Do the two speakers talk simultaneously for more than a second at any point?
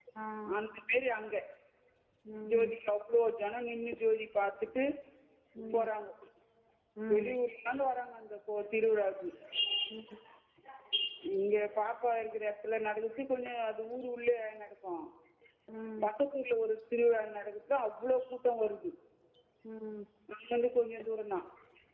No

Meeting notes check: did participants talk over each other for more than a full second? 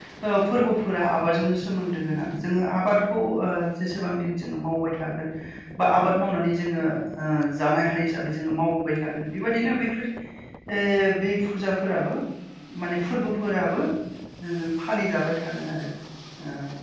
No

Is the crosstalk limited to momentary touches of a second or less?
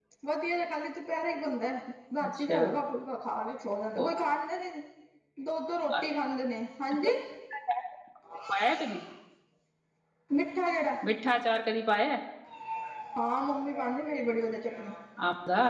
Yes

